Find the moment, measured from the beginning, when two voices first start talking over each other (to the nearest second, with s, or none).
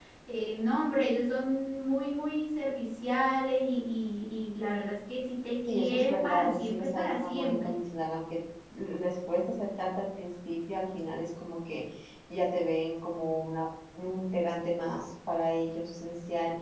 6 s